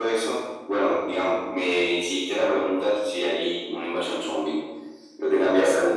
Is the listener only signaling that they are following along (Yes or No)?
Yes